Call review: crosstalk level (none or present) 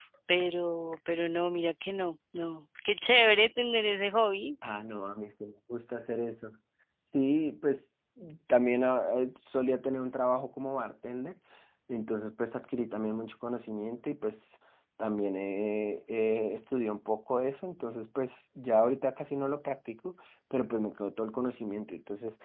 none